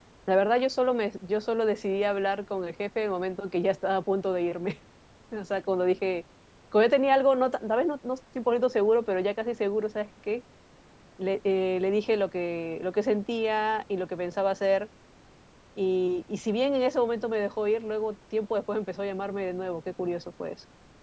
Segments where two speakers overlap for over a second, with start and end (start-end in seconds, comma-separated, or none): none